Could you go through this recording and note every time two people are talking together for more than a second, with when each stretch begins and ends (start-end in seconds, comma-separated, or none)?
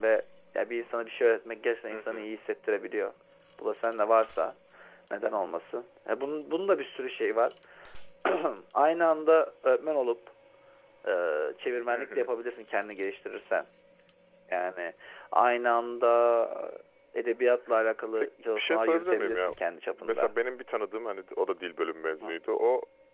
18.2-19.5